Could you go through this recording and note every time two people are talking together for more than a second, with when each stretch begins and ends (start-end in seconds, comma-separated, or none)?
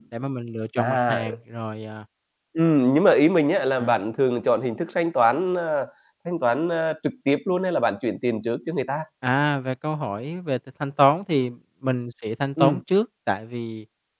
none